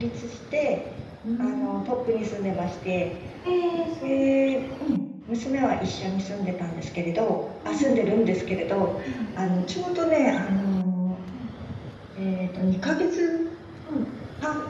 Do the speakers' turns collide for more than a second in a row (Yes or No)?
No